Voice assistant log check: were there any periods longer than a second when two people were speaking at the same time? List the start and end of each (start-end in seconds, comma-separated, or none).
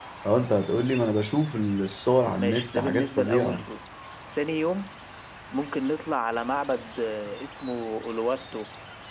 2.4-3.6